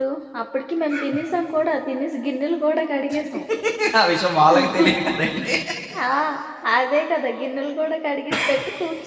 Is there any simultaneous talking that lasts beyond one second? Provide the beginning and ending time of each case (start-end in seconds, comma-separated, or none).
none